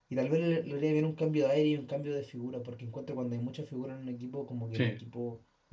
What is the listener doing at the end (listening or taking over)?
listening